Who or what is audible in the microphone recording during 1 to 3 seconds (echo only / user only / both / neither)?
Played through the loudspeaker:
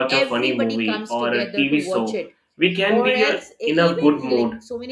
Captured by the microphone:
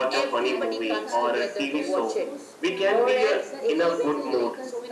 both